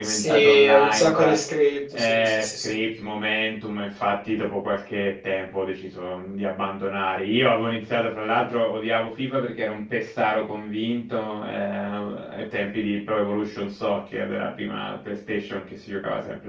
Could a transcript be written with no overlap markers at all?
No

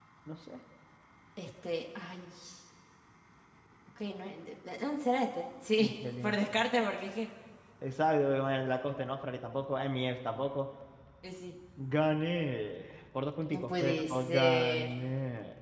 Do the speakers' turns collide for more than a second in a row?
Yes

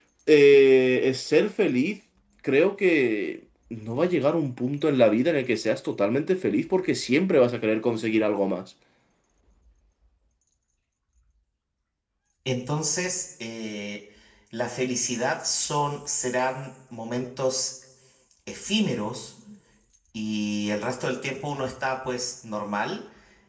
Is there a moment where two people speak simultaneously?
No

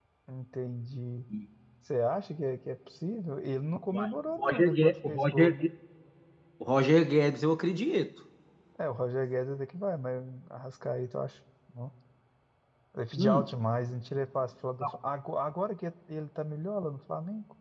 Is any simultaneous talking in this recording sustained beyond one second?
Yes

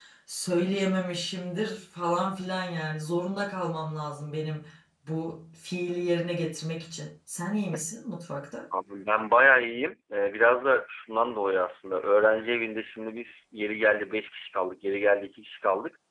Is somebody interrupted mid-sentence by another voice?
No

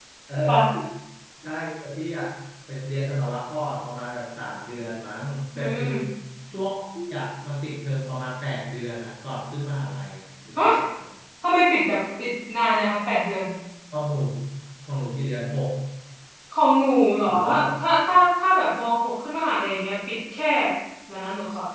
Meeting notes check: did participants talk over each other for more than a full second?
No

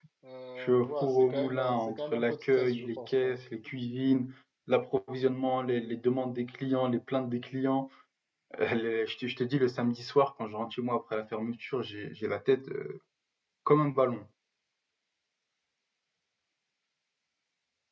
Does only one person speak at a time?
No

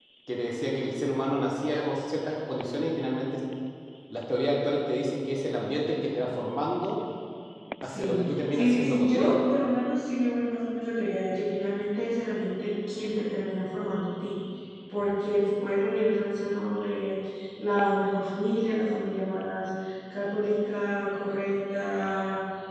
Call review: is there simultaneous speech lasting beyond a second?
Yes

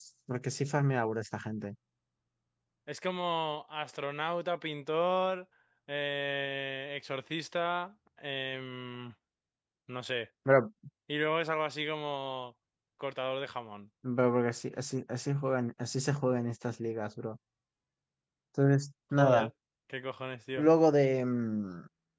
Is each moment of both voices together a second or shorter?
Yes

